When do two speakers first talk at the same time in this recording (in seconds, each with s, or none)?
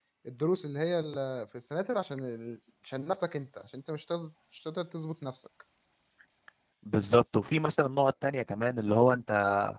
none